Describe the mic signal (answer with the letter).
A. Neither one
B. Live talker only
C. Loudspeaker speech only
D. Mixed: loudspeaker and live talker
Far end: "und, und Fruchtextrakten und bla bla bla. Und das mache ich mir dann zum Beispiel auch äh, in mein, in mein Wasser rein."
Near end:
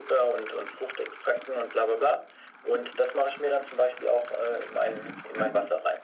C